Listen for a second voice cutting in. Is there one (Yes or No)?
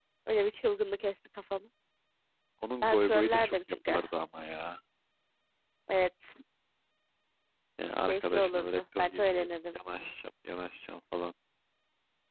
Yes